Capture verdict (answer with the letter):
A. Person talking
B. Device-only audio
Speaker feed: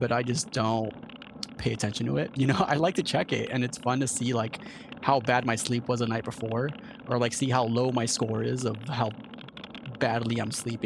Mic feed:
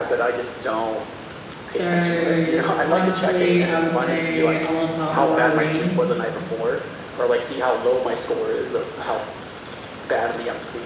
A